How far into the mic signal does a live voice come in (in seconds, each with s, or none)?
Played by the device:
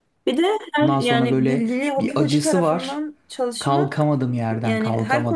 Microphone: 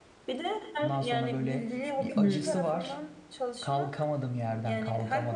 2.1 s